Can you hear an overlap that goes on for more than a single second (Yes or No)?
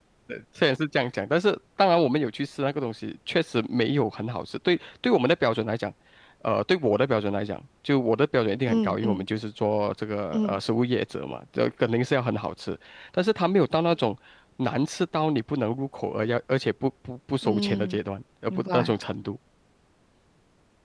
No